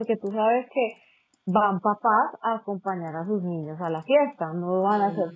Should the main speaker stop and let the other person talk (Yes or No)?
No